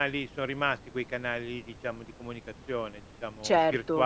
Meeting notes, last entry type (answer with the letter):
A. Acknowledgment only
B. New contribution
B